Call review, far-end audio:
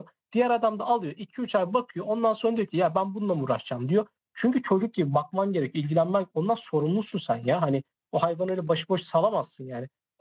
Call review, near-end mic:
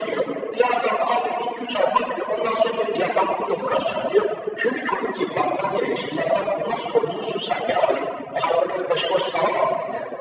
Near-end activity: none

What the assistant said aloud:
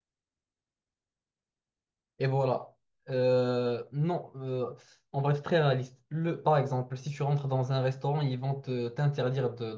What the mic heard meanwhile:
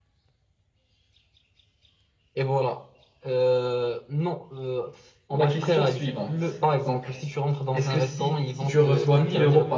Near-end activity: present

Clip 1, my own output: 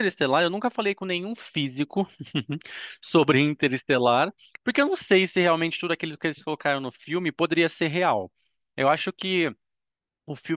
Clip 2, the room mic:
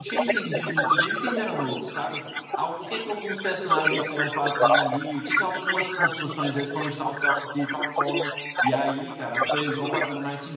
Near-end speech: present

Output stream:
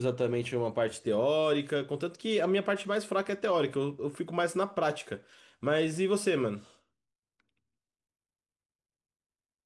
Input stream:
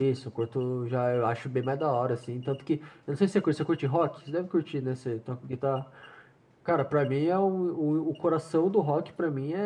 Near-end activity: present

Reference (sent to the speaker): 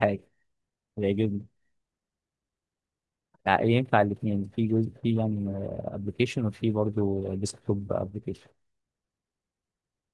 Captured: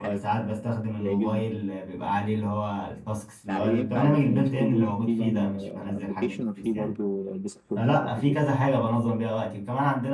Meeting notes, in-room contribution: present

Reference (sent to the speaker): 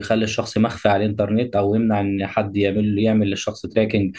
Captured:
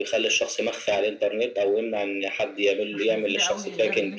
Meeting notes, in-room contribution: present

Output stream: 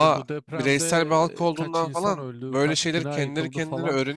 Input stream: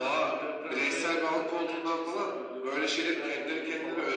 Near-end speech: none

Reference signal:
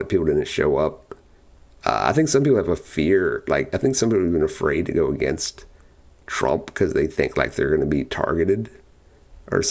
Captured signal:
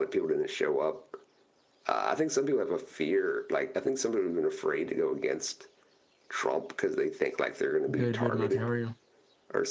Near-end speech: present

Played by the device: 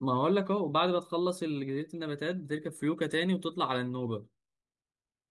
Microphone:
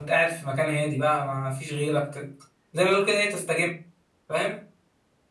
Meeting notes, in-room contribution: present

